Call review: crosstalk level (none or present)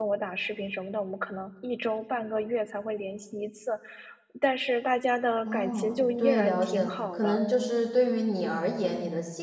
present